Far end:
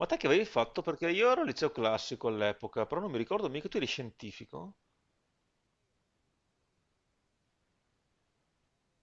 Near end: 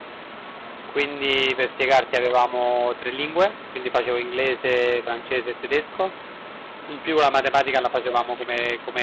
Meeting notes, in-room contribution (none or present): present